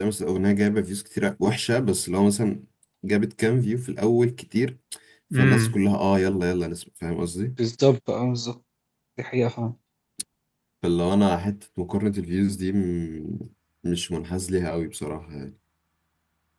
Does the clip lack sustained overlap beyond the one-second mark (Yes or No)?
Yes